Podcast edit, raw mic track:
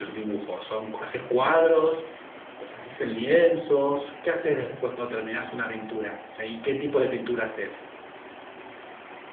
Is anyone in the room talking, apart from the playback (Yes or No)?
Yes